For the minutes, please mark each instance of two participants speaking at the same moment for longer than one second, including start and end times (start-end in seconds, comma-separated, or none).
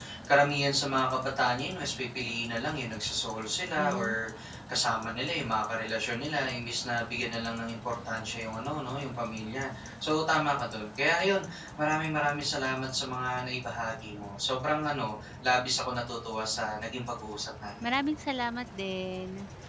none